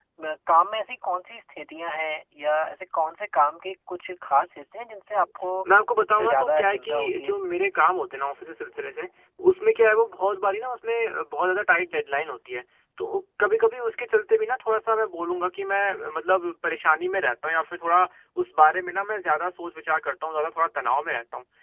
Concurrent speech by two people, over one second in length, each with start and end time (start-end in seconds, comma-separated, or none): 6.0-7.4